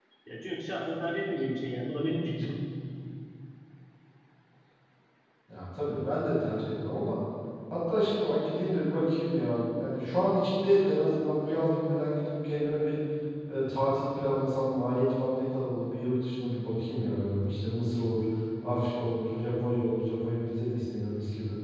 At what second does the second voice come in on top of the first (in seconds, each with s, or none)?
none